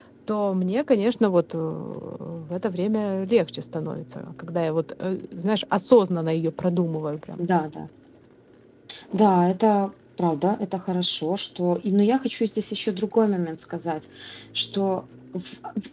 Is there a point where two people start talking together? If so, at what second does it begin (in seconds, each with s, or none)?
none